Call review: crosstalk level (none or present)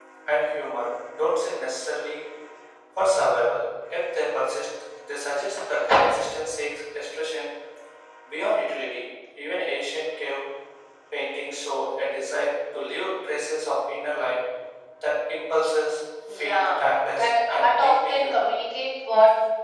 present